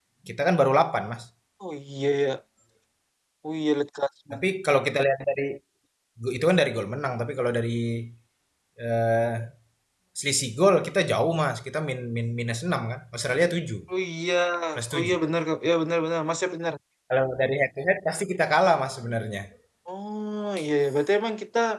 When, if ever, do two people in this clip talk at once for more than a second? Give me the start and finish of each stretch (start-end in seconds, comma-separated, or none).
none